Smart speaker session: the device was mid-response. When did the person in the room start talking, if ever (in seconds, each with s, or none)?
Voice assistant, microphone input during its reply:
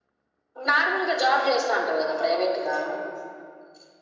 none